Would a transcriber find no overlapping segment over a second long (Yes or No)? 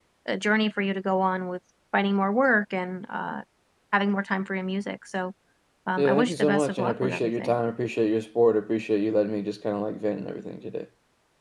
No